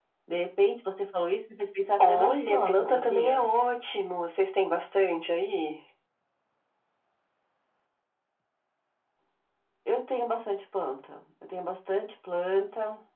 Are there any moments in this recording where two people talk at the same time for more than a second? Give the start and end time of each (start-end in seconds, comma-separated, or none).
2.1-3.4